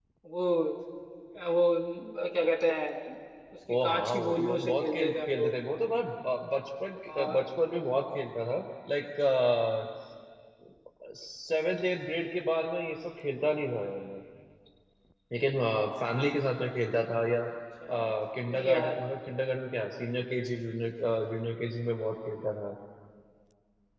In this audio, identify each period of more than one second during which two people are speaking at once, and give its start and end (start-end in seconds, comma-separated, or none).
3.8-5.5